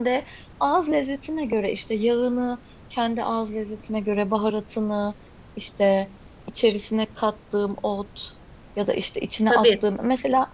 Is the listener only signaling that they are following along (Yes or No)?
Yes